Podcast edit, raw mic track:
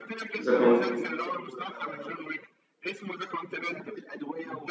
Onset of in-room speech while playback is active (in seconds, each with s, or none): 0.4 s